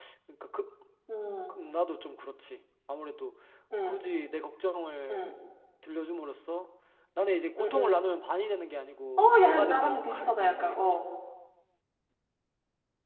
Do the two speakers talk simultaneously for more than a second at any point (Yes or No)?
Yes